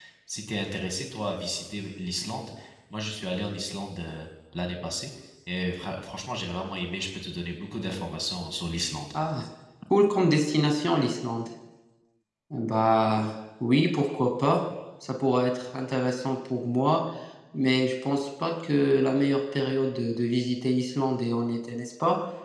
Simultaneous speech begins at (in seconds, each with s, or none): none